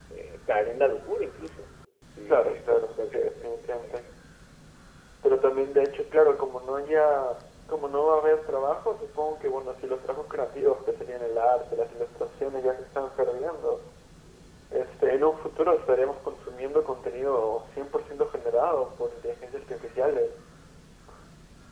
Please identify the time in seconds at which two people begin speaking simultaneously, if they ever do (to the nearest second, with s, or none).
2 s